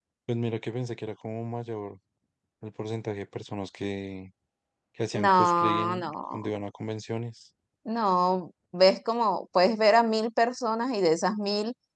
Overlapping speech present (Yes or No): Yes